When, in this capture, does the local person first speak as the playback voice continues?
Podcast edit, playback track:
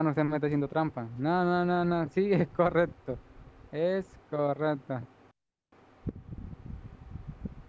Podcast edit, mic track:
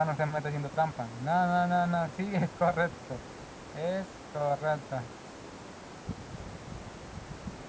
none

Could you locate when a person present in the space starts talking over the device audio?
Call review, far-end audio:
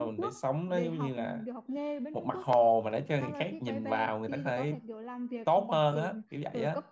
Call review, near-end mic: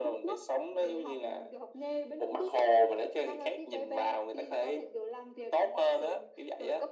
none

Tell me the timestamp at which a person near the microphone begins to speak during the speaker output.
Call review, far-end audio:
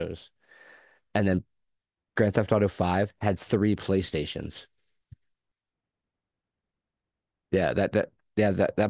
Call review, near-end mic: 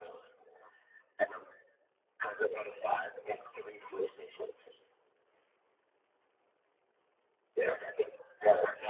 none

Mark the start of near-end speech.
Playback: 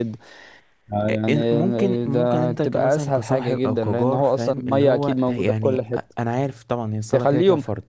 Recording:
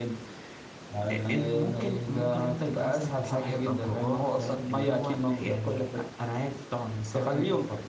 none

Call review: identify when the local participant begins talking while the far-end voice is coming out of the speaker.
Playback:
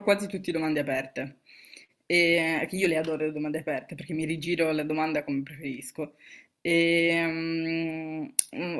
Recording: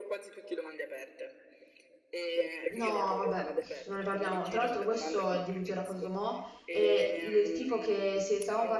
2.7 s

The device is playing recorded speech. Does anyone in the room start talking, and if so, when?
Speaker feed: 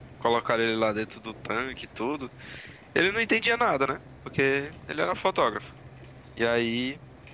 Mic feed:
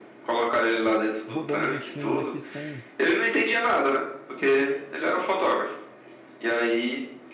1.3 s

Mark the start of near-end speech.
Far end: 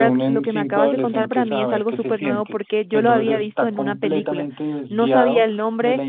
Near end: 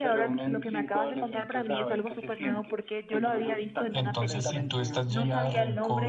3.9 s

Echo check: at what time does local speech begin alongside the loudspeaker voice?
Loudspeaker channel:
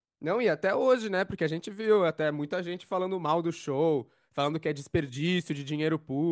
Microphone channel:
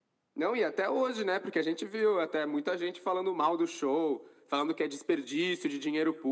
none

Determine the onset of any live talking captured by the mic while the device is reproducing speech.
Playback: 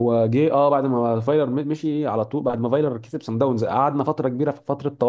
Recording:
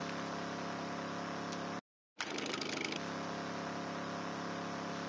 none

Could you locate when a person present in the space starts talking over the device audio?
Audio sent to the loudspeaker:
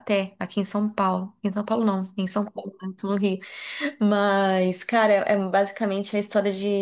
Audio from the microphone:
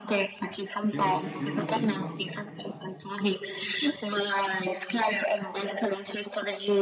0.9 s

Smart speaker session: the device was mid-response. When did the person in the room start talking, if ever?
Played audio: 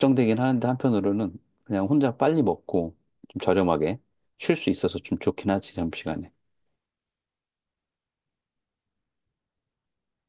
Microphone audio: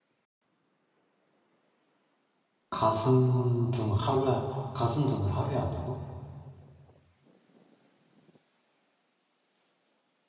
2.7 s

